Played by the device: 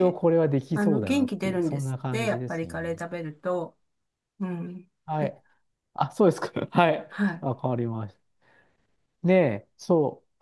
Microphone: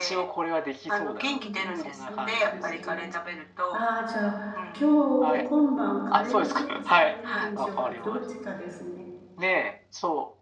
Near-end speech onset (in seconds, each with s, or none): 1.2 s